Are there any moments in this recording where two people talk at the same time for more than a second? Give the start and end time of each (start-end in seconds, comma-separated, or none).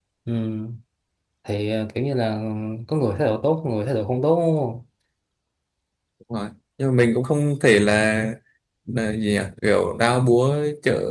none